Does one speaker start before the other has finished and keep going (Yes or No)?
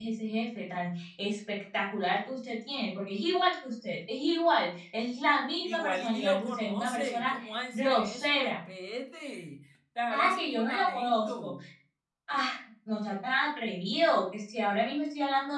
Yes